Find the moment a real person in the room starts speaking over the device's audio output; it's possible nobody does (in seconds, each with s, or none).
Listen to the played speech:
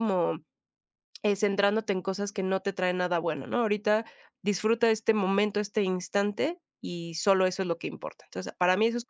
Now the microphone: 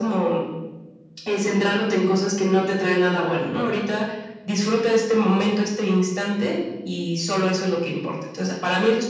none